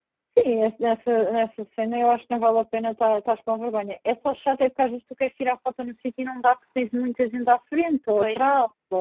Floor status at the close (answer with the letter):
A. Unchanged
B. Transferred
A